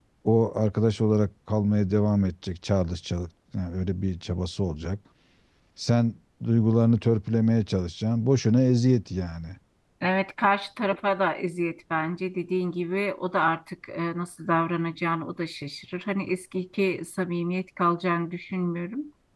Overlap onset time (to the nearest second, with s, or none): none